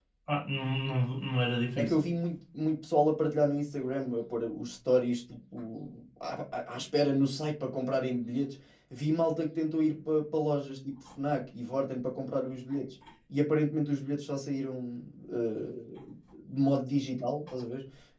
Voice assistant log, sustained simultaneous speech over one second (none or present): none